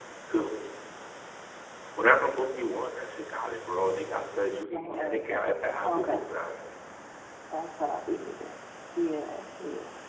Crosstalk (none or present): present